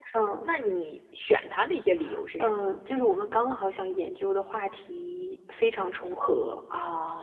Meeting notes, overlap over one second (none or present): none